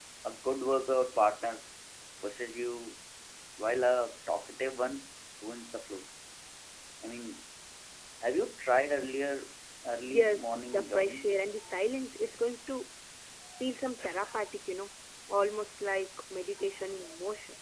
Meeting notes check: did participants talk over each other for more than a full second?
Yes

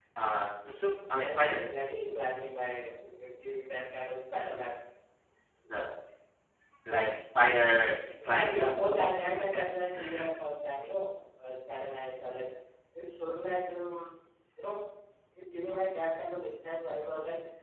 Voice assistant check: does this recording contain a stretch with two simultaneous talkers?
Yes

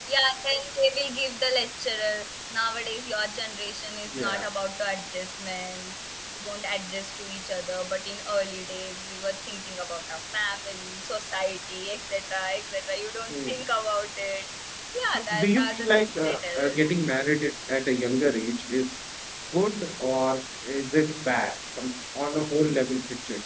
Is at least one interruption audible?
Yes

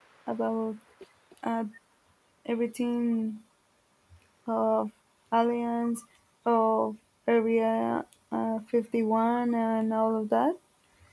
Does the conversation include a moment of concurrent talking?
No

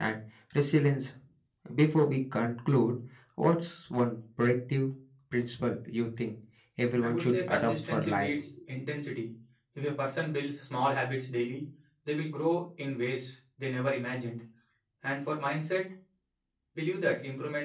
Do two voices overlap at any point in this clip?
Yes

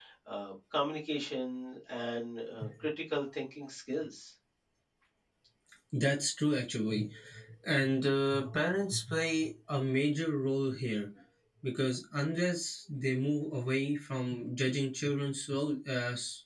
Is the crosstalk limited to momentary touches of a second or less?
Yes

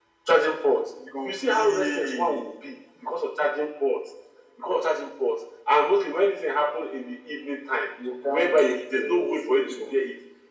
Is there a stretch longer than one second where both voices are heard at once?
Yes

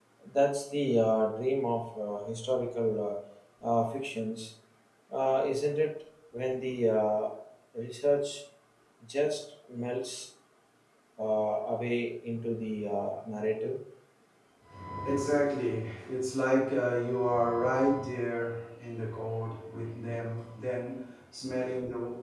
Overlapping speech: No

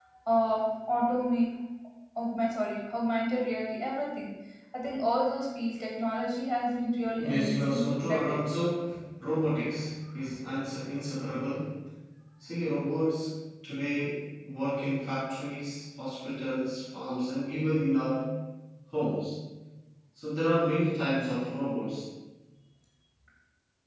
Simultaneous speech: Yes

